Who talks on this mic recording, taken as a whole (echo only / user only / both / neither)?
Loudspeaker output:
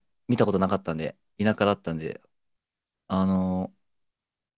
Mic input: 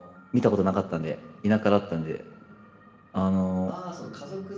both